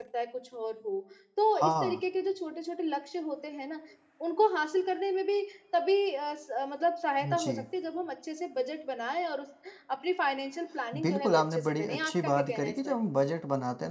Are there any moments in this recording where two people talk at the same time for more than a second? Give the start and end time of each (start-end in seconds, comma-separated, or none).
11.0-12.9